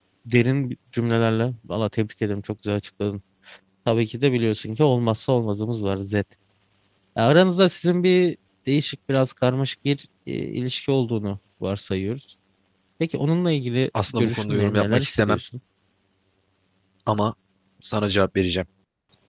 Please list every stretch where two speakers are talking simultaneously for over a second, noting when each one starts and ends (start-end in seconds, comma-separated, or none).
14.2-15.4